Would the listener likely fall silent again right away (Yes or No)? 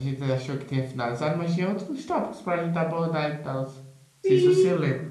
No